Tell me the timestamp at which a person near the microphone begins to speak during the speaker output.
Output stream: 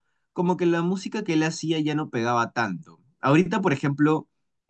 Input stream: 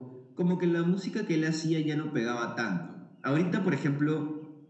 none

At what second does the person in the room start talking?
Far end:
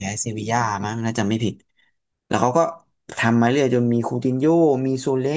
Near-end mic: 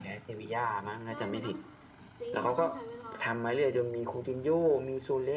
1.1 s

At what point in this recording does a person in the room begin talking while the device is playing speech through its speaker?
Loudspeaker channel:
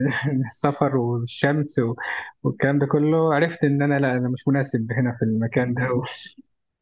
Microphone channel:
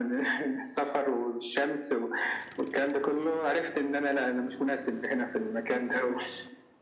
none

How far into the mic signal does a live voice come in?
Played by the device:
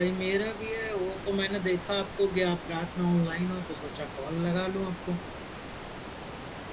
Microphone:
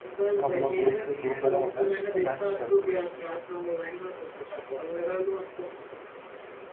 0.4 s

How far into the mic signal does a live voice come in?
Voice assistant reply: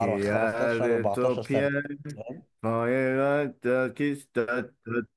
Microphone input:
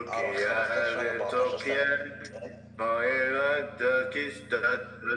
none

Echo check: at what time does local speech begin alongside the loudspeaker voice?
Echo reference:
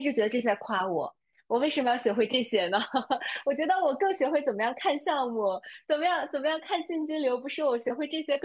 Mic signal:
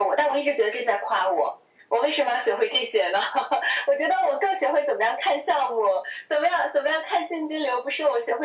none

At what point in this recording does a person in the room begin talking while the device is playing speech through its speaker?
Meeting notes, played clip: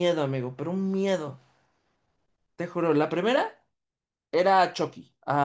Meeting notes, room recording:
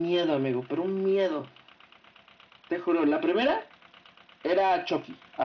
none

